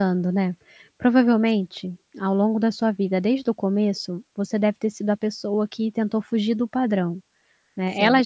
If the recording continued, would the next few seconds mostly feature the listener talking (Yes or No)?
No